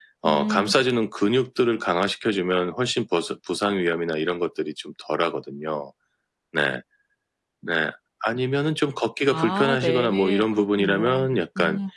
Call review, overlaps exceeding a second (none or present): present